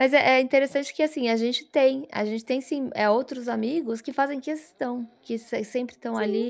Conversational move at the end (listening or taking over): listening